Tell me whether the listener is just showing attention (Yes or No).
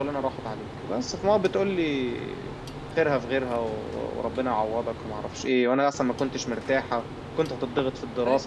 Yes